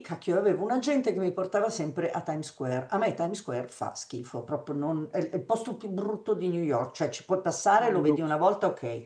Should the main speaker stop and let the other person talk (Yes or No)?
No